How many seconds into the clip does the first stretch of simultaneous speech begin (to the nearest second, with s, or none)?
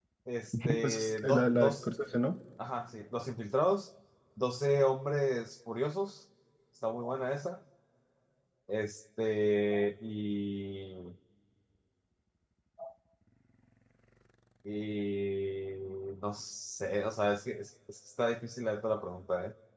1 s